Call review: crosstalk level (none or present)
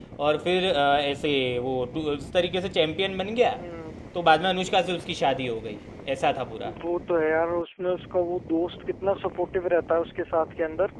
none